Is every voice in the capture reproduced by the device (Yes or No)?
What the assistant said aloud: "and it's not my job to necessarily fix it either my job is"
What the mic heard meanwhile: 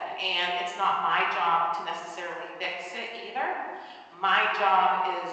Yes